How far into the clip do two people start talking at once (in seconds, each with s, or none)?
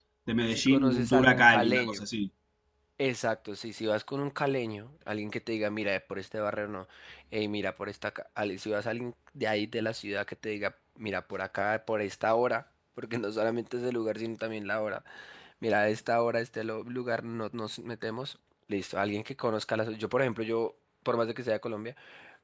0.5 s